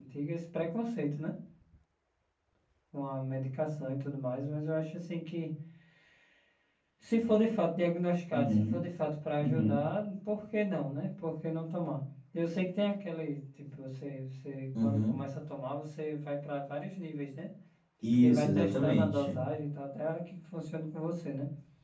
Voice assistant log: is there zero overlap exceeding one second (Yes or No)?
No